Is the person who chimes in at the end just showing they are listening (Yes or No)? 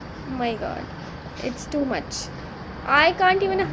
Yes